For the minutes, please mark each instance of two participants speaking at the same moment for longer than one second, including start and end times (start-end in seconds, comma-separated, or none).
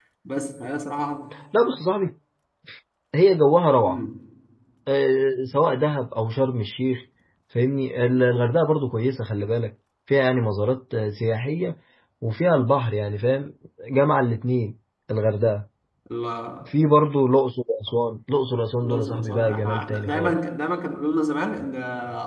18.8-20.4